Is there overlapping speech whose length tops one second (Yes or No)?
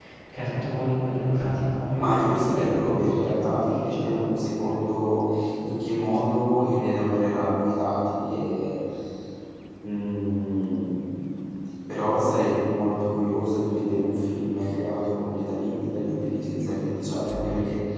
Yes